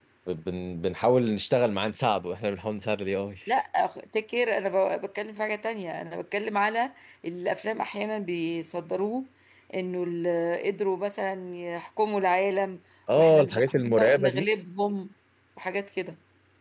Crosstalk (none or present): present